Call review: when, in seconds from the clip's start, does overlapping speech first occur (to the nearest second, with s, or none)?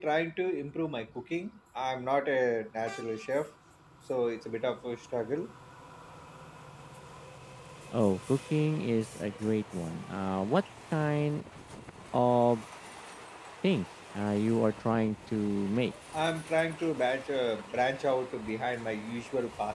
none